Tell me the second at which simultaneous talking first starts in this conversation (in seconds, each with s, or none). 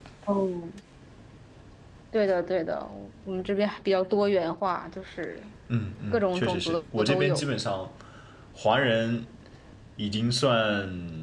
6.1 s